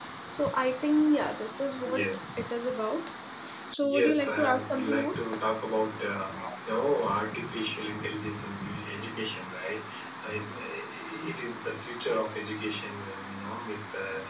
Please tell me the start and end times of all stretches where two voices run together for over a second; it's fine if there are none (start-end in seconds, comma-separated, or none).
3.8-5.2